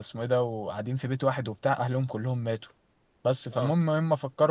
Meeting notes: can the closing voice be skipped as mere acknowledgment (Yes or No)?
Yes